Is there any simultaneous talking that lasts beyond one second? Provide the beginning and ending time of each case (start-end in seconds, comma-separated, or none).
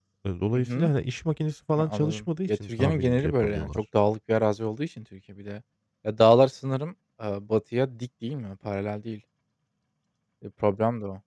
1.8-3.7